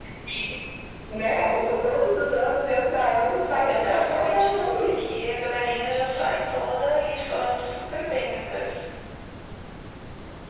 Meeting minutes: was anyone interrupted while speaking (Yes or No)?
Yes